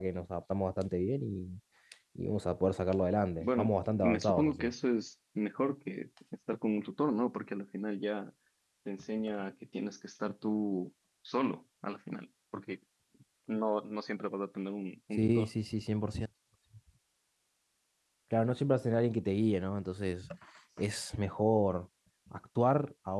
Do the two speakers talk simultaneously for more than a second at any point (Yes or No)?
Yes